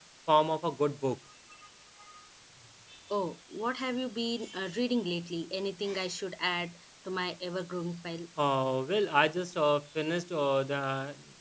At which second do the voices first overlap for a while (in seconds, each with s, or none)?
none